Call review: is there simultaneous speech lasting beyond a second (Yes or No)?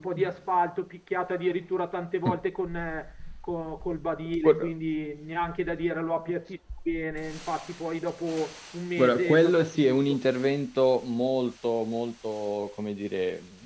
Yes